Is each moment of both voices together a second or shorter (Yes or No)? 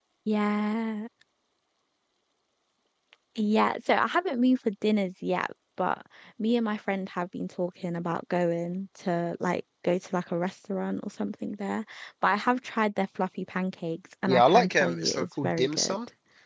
No